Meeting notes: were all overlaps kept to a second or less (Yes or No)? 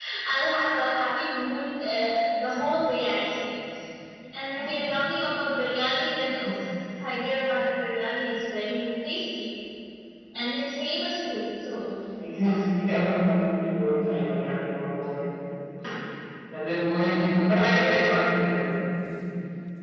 Yes